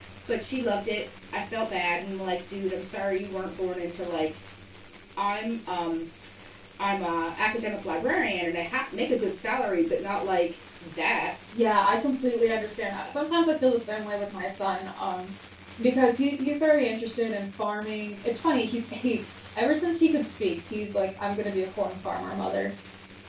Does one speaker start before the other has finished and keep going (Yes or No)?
No